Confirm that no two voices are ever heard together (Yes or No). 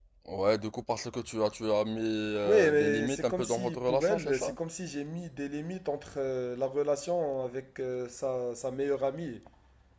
No